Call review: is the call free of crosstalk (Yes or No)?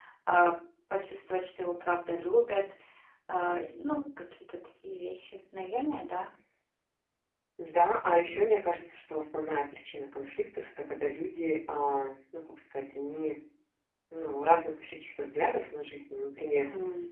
Yes